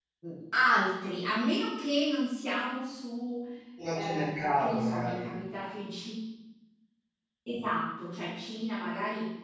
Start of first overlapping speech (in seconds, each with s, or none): 3.9 s